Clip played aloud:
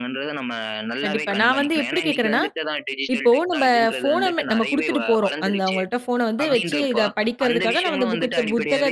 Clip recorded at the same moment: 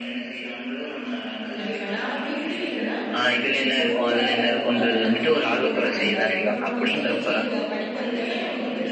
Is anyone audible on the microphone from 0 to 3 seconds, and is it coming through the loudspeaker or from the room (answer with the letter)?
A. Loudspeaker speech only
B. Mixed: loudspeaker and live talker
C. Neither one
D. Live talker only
A